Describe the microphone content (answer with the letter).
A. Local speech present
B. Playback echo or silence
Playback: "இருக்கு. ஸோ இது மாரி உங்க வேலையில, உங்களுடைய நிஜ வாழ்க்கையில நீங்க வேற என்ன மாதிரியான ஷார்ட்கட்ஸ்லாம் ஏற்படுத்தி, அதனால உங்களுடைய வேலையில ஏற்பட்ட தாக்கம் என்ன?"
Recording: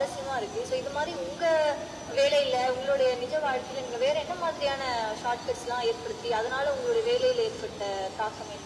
B